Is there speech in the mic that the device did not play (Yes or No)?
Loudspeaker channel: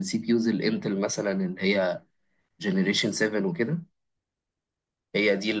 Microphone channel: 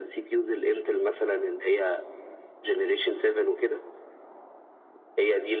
No